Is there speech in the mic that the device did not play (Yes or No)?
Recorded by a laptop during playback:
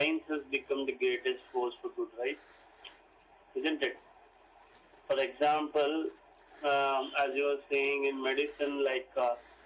No